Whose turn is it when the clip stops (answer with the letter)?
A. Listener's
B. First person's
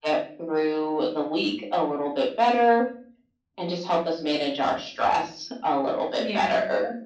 A